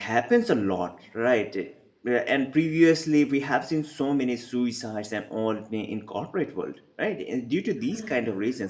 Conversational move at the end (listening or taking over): listening